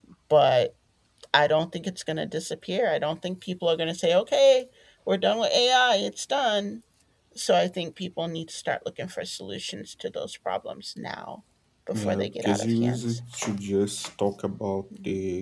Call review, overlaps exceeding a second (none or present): present